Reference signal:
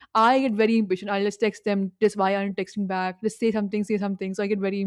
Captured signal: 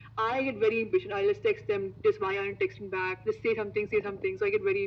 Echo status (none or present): present